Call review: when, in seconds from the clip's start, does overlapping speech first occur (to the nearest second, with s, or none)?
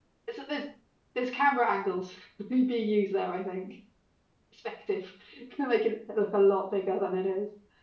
none